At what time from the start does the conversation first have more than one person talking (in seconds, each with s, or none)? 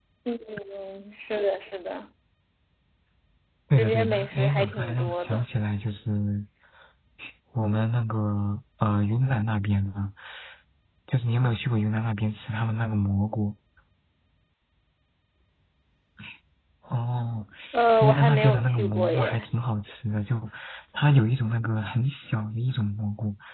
3.8 s